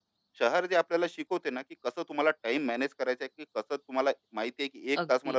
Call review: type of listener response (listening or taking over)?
listening